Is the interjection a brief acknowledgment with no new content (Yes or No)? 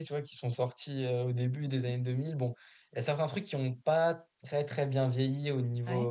Yes